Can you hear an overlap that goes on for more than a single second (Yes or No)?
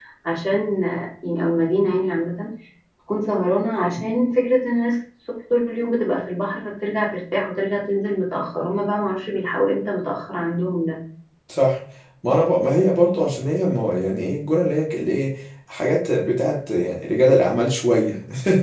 No